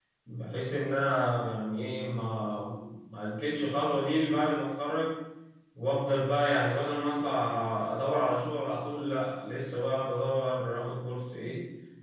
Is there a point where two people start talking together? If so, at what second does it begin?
none

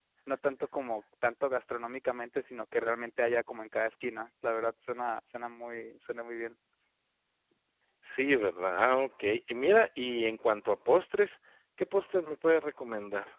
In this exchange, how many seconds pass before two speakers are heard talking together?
none

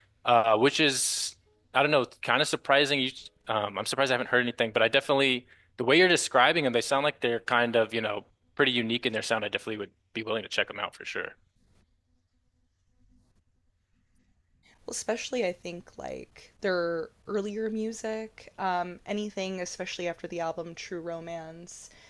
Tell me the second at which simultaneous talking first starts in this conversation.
none

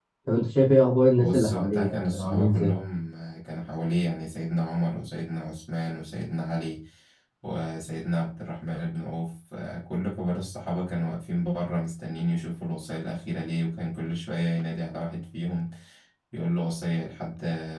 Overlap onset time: 1.2 s

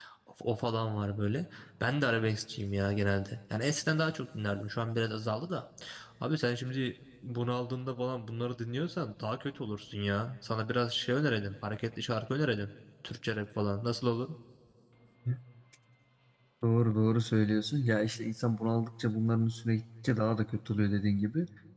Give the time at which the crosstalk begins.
none

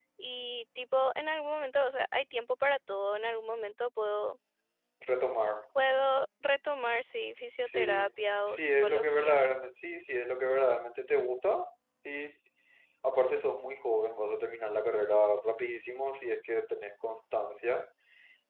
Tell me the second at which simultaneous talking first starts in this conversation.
7.6 s

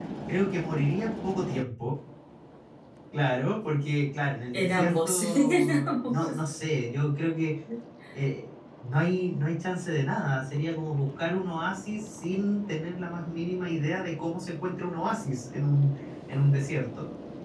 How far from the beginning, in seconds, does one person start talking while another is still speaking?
4.5 s

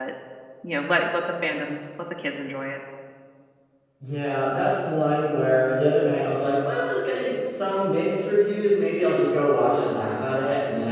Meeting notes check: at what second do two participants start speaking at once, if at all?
none

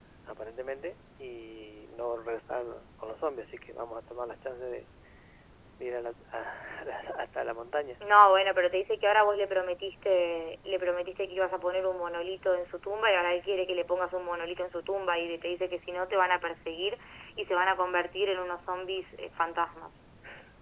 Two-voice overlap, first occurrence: none

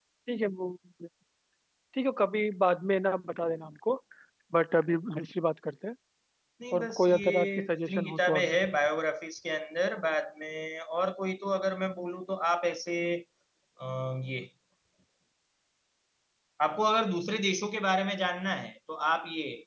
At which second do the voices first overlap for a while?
6.7 s

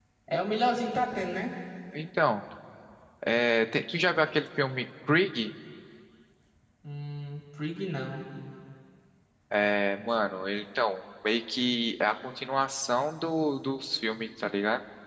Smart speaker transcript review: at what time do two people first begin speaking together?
none

